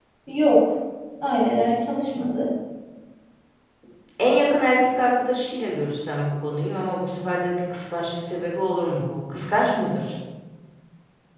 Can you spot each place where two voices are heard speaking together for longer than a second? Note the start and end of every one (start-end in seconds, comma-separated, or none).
none